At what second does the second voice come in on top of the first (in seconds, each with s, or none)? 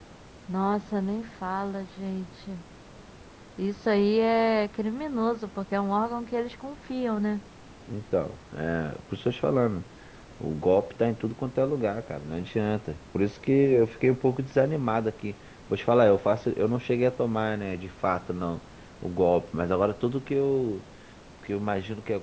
none